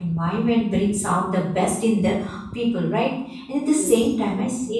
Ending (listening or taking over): listening